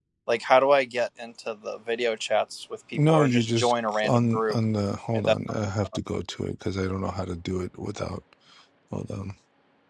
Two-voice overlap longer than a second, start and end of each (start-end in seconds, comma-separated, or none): 3.1-4.6